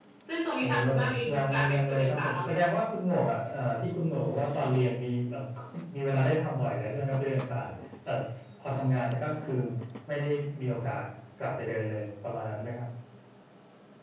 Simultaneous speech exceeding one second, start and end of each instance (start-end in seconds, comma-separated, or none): 1.3-2.7